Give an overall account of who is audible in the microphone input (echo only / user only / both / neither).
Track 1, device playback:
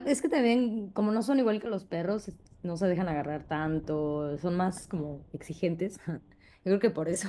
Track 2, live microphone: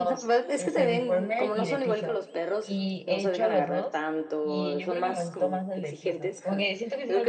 both